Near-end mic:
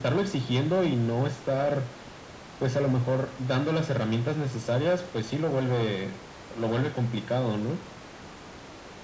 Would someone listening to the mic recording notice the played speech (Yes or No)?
Yes